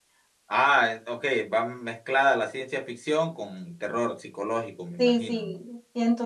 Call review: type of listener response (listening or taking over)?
taking over